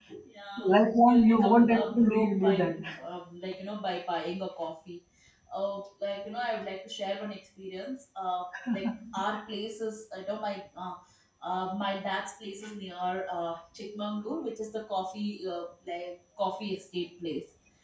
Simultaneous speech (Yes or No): Yes